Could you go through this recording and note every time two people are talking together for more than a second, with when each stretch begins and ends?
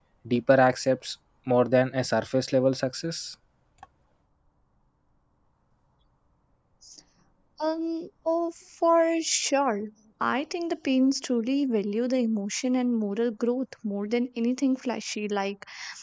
none

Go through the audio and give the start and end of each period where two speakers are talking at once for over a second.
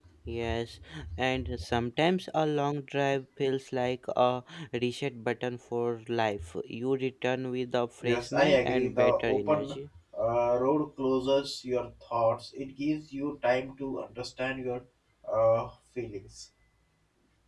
8.0-9.8

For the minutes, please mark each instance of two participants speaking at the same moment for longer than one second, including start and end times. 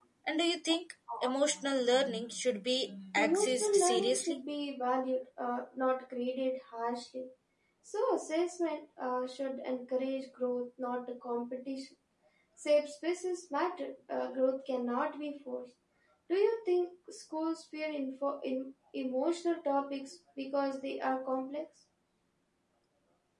3.2-4.4

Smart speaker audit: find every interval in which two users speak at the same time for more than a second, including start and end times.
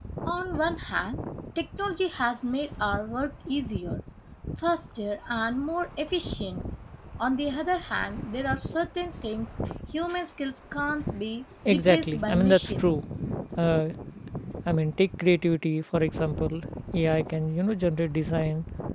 11.6-13.0

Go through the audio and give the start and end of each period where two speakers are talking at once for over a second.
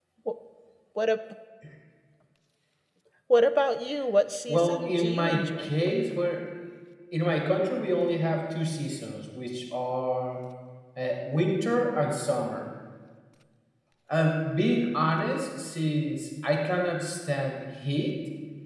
4.5-5.7

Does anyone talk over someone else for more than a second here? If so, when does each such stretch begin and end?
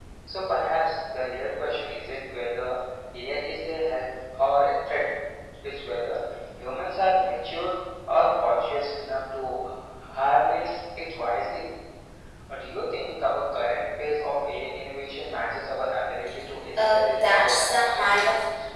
16.9-18.2

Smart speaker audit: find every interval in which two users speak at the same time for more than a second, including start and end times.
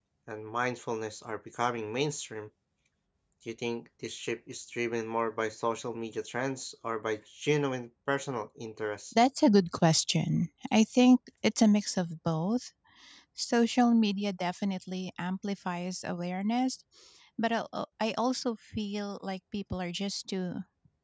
none

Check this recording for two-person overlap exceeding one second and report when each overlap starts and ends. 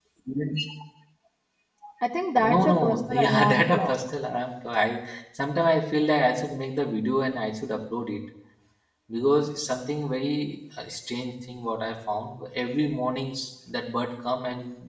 2.4-4.0

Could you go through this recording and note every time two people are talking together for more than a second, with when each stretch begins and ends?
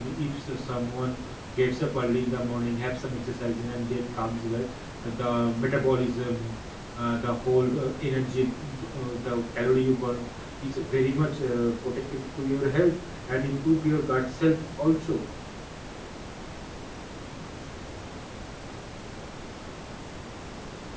none

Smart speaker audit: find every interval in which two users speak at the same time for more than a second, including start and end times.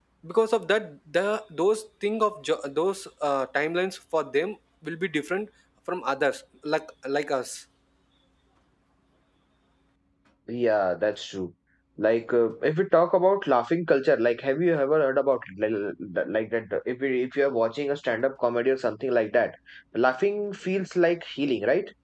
none

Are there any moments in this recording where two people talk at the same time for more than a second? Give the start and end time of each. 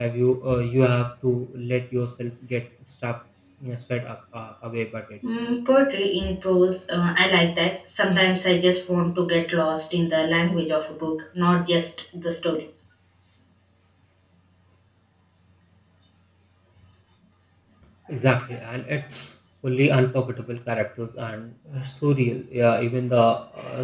none

